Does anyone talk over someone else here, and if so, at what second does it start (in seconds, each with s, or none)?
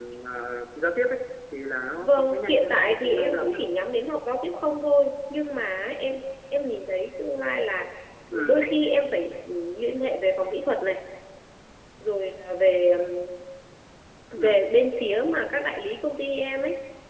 2.0 s